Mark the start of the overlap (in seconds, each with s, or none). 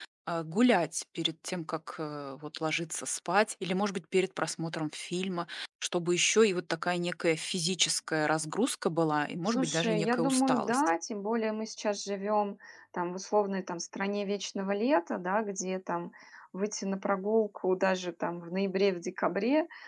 9.5 s